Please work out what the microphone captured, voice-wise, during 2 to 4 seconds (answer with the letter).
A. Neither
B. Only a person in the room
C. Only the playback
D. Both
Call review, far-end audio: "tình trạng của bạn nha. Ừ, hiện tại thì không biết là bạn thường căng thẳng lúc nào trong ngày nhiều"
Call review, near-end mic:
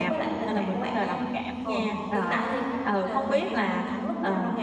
D